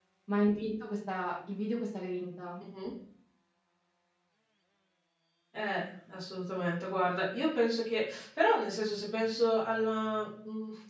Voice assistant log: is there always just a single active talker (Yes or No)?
Yes